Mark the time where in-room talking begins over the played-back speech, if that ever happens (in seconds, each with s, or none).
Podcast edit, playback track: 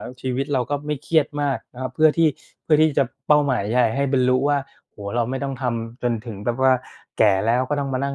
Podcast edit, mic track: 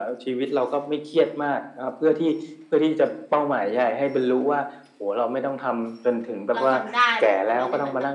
6.5 s